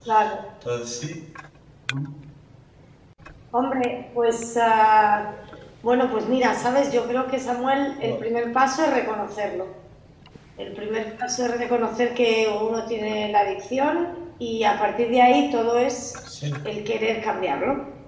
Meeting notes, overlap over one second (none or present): none